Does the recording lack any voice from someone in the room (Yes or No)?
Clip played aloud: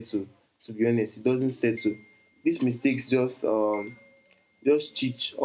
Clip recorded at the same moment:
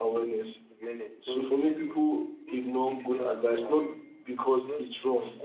No